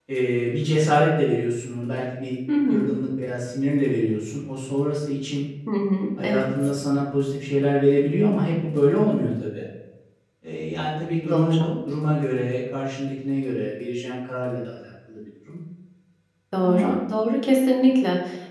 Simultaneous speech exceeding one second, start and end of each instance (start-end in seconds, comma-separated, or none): none